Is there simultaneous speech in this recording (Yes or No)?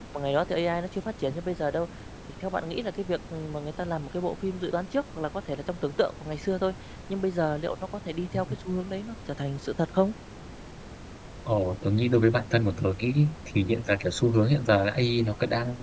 No